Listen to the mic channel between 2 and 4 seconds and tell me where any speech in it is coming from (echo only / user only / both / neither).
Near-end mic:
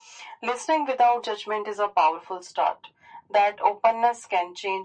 echo only